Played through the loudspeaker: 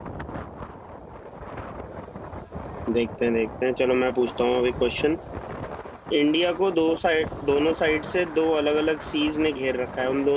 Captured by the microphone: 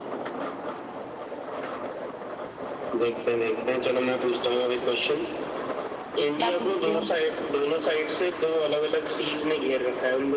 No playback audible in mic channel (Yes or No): No